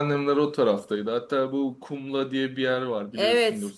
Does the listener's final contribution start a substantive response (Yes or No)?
Yes